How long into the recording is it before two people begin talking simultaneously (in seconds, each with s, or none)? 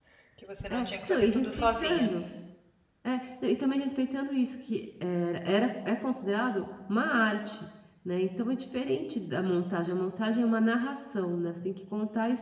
0.7 s